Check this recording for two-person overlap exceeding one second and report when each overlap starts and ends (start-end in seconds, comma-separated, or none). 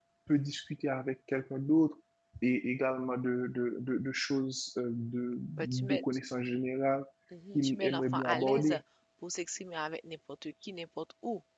7.5-8.8